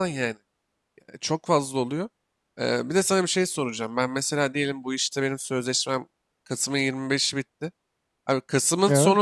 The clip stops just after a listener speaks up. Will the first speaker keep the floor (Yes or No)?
Yes